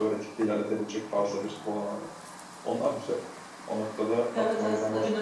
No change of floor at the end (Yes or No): No